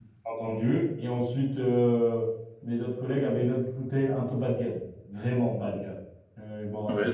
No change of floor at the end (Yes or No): No